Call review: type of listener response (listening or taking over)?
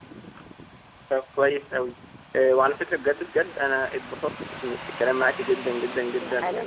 taking over